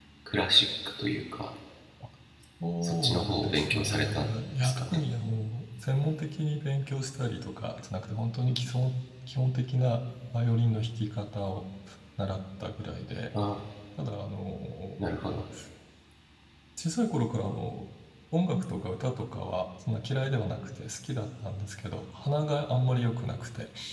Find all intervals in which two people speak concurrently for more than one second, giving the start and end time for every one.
2.8-5.0

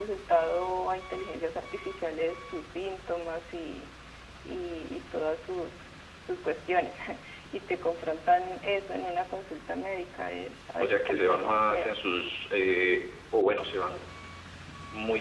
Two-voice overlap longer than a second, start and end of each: 10.8-12.0

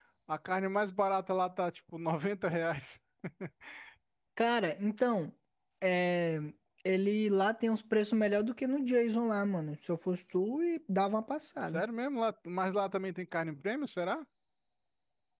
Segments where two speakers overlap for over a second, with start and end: none

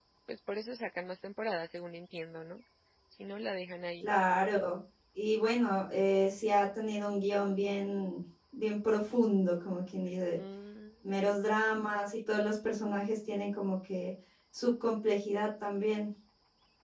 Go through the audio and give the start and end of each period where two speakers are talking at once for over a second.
none

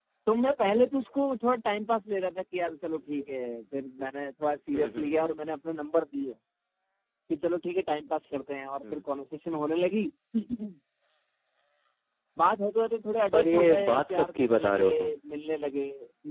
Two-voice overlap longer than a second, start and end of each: 13.3-14.9

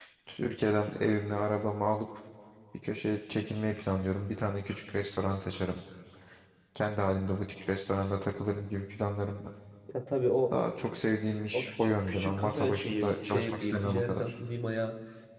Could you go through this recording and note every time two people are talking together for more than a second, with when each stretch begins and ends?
11.5-14.3

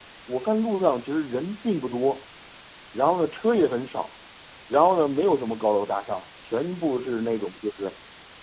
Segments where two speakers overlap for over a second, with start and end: none

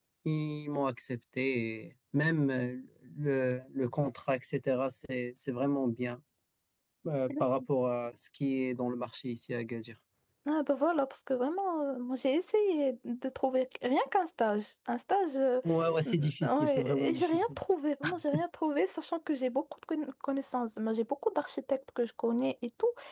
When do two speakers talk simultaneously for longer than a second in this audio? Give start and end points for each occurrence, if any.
16.1-17.5

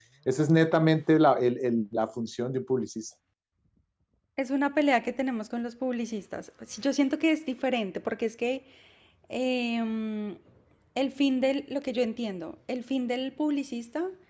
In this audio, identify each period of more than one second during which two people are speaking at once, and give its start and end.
none

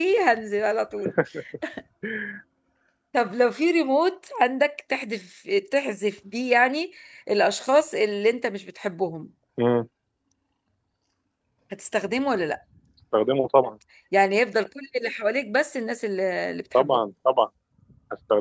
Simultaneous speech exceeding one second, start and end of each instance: none

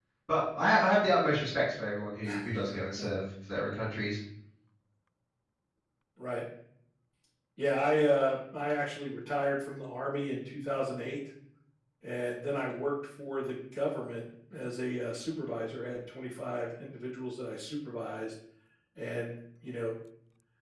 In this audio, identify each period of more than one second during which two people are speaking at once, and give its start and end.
none

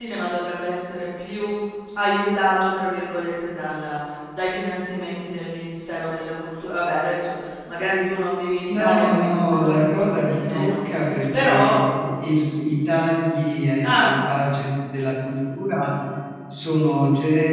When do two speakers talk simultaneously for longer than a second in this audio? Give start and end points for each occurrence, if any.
8.7-10.8

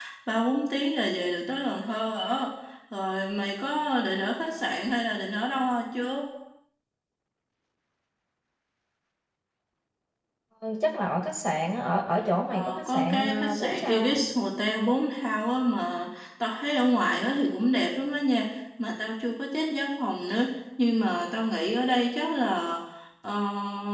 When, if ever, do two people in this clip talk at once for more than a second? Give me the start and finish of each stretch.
12.5-14.2

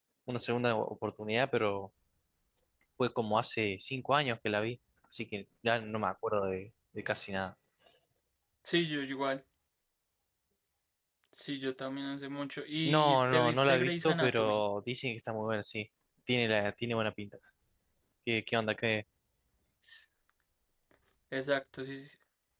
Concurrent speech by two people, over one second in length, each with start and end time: 12.8-14.6

